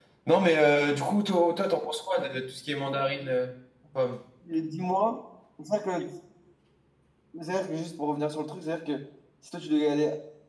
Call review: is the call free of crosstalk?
Yes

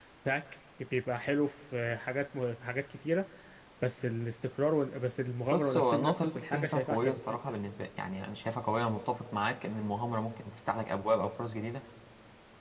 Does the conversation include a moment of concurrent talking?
Yes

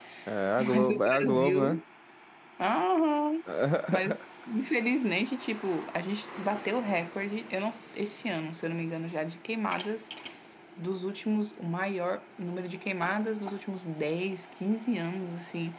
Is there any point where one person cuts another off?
Yes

